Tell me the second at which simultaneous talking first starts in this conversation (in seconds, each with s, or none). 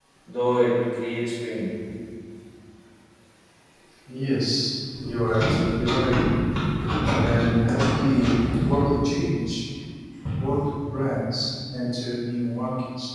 none